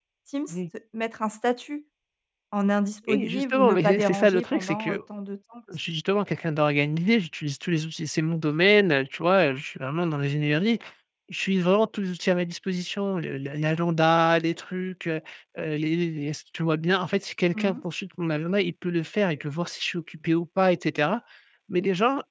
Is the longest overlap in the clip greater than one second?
Yes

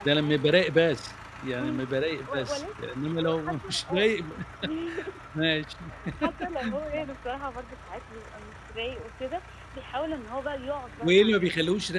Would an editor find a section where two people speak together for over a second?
Yes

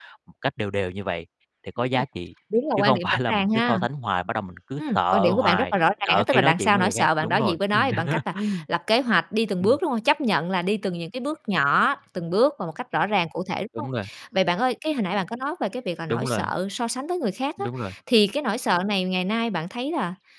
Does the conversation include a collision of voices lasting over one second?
Yes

